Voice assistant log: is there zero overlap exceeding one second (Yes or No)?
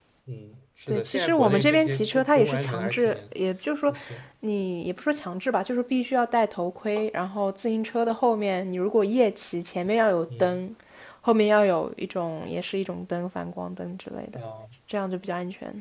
No